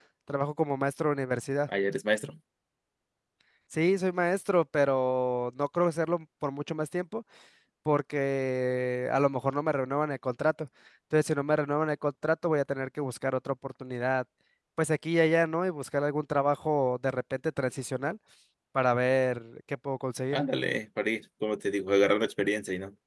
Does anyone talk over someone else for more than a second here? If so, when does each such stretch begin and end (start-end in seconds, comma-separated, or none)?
none